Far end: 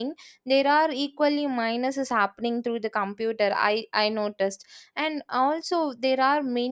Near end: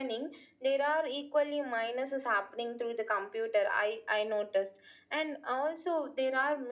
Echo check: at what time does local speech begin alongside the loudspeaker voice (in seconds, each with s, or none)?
none